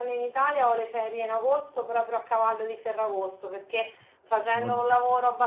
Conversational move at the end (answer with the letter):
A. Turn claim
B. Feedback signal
B